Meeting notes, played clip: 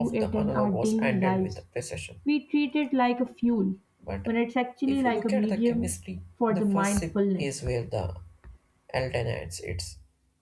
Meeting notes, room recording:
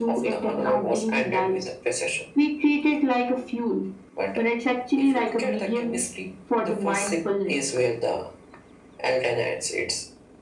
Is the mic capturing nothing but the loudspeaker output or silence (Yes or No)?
Yes